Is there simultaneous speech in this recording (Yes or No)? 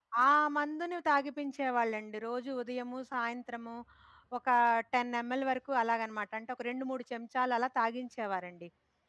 No